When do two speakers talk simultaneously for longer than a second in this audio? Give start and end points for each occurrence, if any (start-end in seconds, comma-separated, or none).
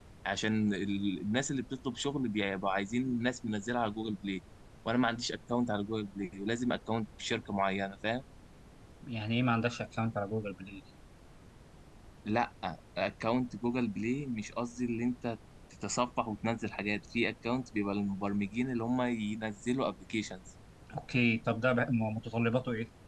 none